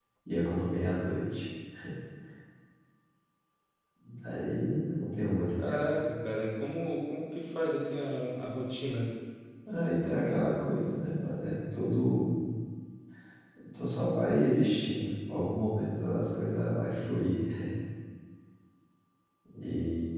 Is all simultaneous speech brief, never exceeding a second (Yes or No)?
Yes